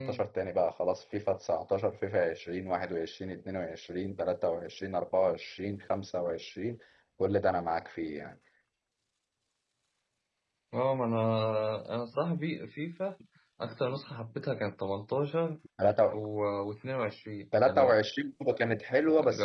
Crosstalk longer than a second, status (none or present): none